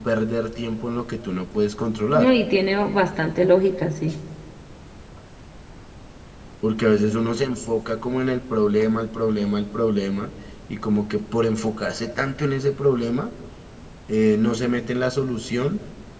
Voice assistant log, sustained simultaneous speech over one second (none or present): none